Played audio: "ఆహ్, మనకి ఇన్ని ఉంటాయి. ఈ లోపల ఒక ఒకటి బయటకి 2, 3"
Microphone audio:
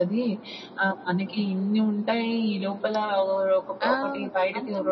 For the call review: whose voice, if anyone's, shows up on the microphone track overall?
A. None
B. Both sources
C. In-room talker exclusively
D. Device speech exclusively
B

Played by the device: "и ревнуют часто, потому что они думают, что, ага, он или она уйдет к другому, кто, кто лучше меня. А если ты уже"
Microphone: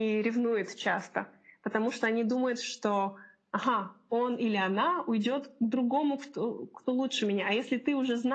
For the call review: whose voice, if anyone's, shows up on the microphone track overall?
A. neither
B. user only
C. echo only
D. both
C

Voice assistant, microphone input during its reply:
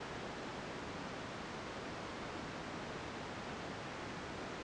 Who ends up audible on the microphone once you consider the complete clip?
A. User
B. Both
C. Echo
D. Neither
D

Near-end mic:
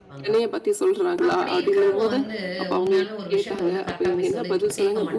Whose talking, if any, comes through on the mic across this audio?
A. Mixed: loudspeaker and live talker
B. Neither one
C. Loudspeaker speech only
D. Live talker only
A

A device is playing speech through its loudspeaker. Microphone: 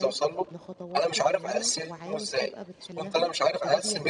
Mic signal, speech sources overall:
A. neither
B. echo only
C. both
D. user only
C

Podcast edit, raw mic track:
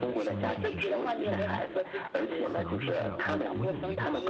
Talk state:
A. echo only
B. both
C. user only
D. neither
B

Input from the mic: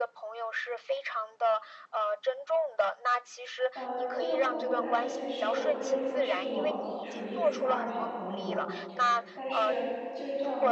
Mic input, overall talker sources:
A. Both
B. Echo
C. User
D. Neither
A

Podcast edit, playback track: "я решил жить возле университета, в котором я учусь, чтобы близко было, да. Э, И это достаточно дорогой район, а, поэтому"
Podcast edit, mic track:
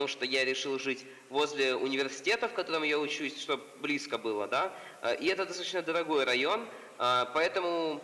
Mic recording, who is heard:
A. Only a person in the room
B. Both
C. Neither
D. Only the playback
D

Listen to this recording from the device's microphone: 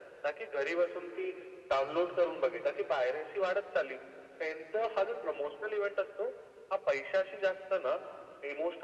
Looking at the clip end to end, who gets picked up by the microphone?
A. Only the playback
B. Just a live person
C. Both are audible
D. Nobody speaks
A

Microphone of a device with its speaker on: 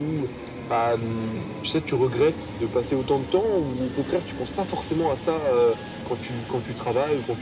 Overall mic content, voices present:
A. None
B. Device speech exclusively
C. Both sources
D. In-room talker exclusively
B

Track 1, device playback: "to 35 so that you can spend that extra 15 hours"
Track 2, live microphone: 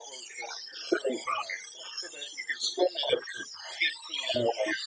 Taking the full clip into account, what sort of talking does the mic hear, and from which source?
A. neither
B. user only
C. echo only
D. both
C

